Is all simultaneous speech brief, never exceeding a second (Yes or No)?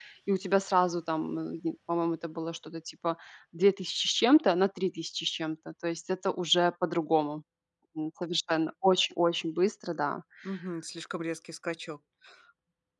Yes